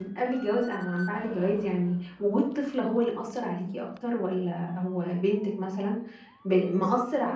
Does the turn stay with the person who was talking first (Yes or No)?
Yes